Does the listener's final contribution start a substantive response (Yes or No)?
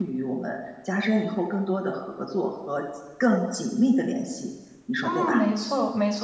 Yes